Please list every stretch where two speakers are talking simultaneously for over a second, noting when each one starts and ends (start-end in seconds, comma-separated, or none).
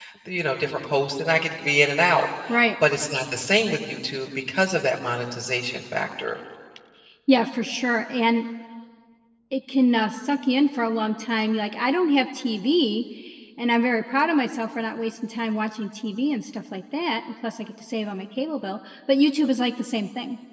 none